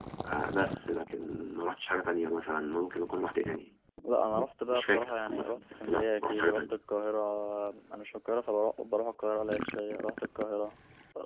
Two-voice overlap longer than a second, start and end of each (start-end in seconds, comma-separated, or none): 4.7-6.7